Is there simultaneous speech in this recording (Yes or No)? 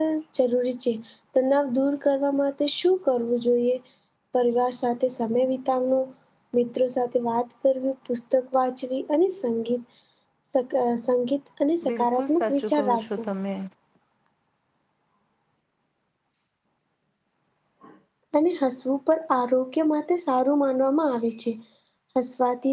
Yes